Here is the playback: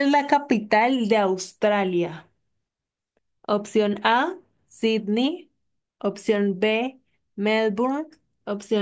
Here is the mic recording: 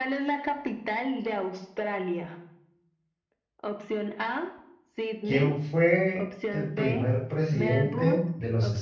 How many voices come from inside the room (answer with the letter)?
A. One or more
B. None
A